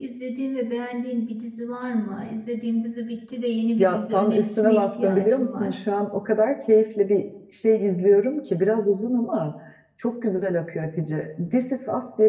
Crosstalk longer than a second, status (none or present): present